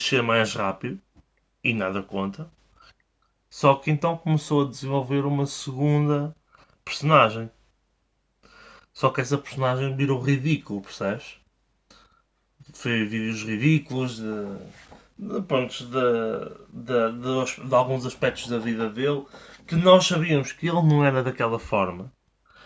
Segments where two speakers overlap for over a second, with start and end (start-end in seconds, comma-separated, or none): none